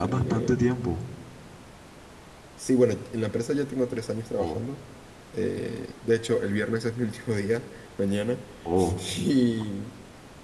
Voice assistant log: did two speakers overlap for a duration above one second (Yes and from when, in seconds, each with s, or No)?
No